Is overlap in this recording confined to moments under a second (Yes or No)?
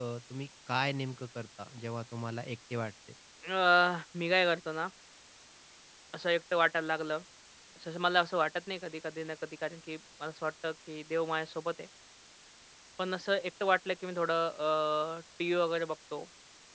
Yes